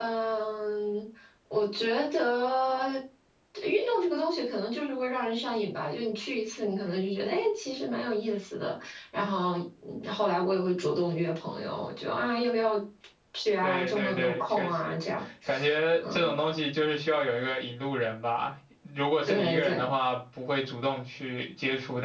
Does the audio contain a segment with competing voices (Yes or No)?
Yes